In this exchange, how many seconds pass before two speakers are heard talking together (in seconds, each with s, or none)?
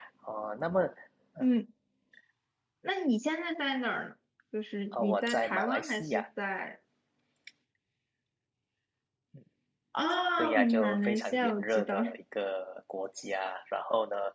4.9 s